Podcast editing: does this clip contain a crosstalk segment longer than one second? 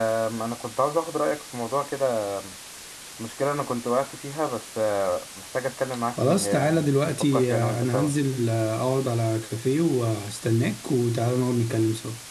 Yes, from 6.2 s

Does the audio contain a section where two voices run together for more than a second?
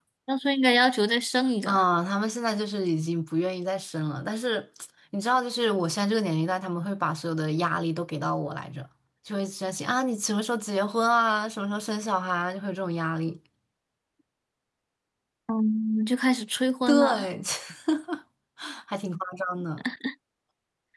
No

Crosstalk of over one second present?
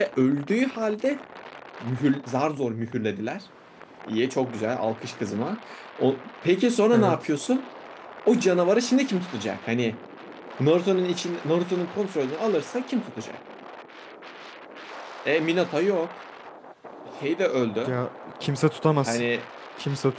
No

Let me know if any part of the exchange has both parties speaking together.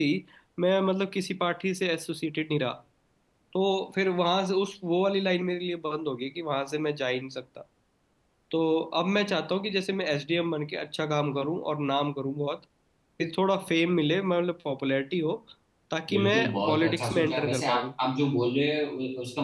Yes, from 16.1 s

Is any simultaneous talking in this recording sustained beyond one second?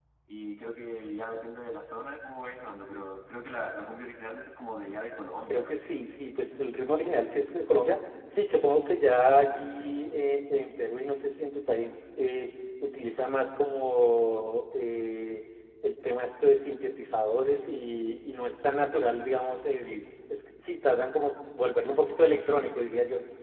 No

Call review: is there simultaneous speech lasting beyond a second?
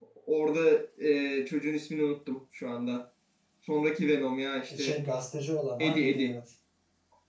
No

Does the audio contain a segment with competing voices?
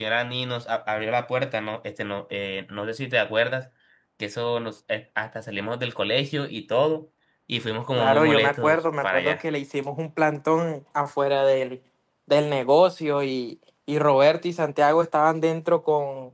Yes, from 8.0 s

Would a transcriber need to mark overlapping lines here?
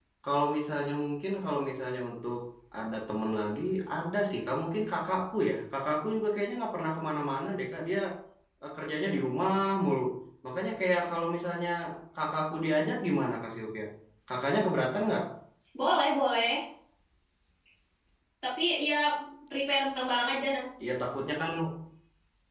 No

